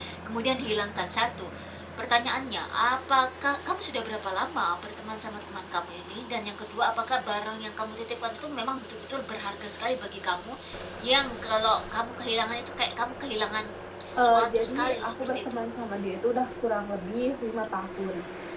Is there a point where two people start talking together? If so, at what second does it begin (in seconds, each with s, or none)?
14.2 s